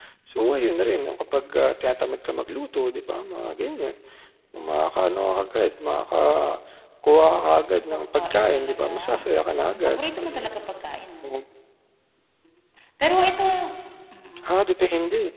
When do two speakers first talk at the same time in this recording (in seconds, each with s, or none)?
7.9 s